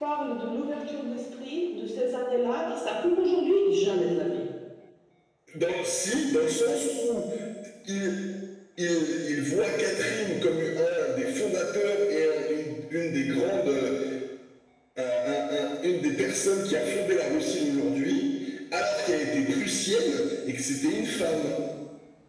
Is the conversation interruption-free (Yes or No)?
Yes